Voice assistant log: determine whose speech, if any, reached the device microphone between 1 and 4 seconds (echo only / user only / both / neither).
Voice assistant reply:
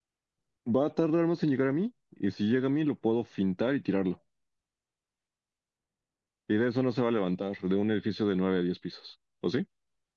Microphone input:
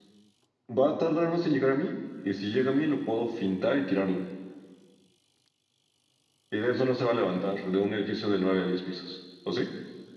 echo only